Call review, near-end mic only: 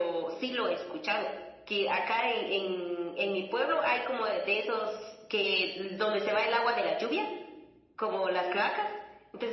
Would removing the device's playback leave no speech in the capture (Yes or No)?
Yes